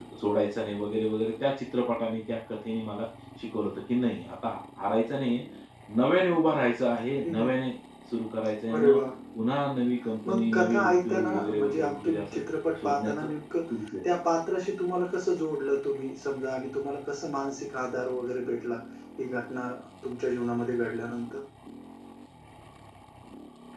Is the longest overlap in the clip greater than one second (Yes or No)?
Yes